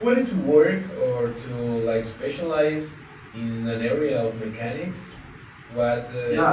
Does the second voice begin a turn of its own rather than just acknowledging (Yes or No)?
Yes